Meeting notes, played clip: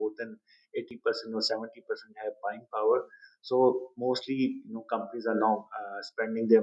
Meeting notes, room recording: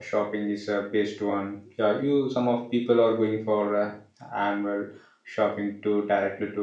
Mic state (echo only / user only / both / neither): user only